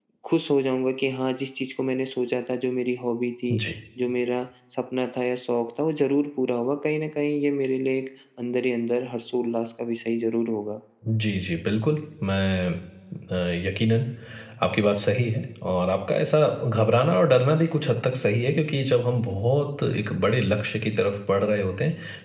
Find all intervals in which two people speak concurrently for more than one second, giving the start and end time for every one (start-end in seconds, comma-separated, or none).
none